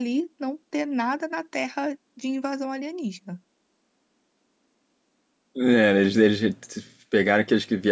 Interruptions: none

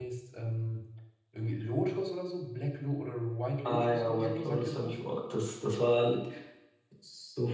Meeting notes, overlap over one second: present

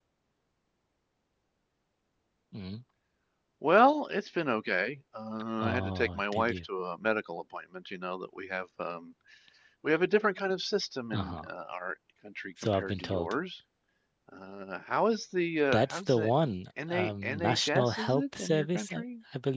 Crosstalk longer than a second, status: present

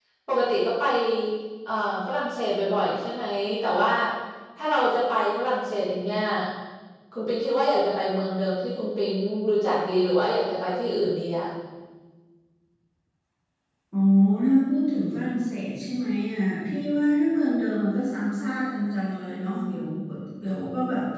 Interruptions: none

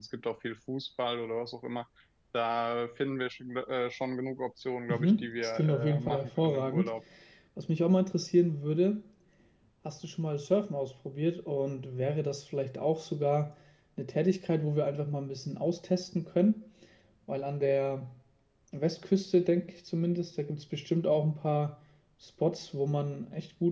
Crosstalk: present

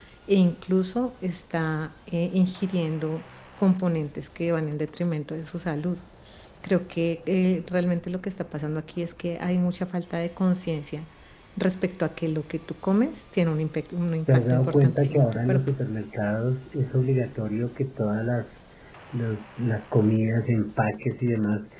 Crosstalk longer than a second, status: present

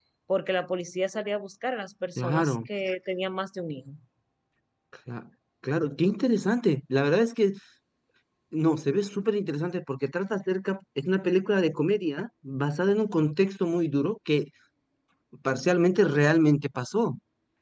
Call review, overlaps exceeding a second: none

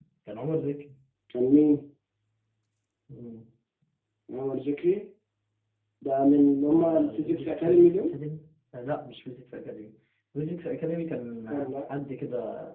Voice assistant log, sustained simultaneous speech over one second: present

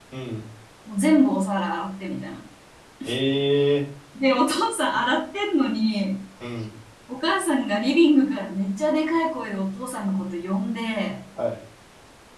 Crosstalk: none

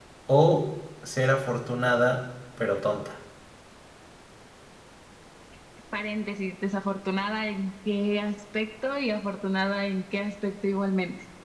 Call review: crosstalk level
none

